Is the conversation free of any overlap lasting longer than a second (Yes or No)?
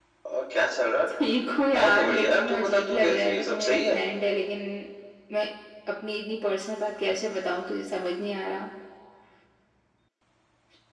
No